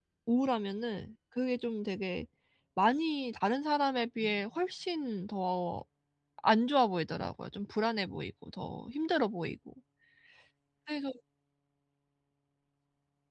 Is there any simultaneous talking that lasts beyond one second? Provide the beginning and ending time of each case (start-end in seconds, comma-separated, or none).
none